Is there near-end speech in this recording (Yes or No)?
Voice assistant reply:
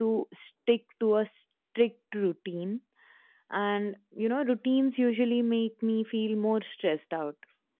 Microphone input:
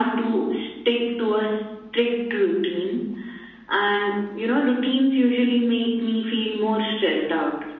No